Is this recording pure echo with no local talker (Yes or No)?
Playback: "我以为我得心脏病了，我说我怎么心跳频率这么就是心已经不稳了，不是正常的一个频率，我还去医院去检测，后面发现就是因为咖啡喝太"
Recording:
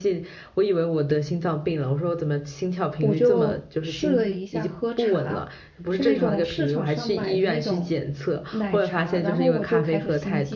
No